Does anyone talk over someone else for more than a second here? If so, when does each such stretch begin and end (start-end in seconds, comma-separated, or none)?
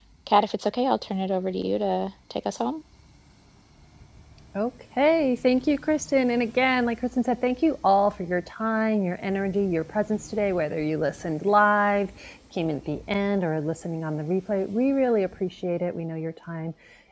none